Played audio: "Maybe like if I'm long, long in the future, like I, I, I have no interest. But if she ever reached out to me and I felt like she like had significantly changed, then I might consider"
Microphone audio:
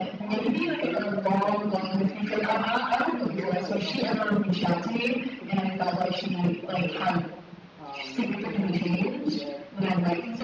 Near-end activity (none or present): present